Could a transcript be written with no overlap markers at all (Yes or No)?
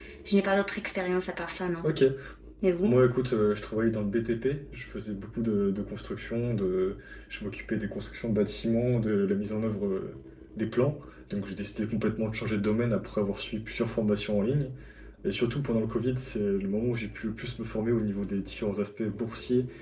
Yes